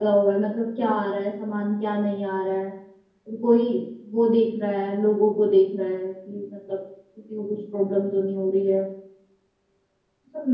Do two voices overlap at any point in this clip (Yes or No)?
No